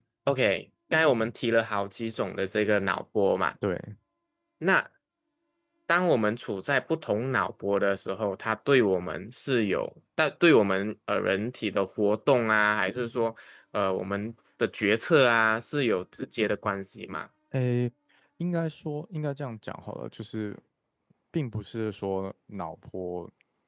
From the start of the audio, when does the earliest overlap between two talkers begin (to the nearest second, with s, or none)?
none